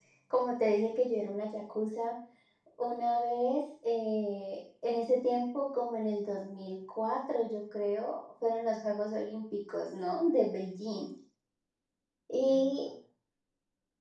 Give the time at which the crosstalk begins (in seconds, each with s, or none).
none